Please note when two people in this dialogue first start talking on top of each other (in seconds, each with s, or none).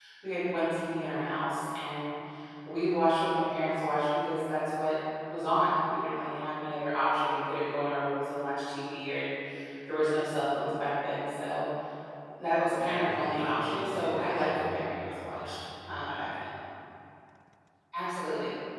12.8 s